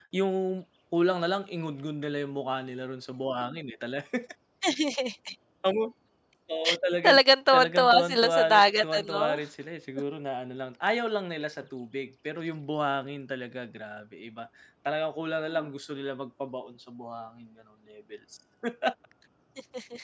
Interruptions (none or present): present